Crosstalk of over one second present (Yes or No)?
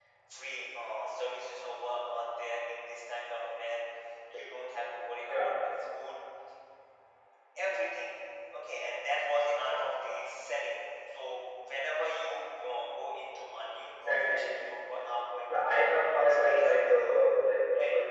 Yes